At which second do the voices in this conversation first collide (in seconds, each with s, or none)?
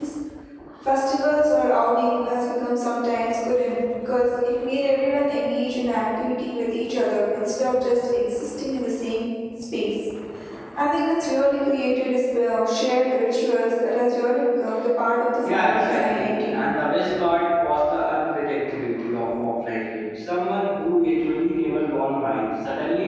15.4 s